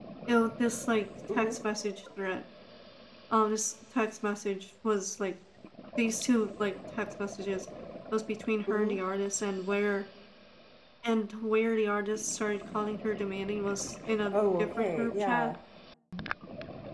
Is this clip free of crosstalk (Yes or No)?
No